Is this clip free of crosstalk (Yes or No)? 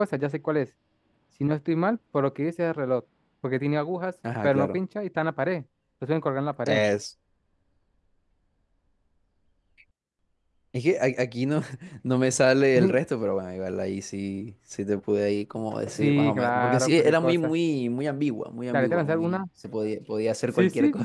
No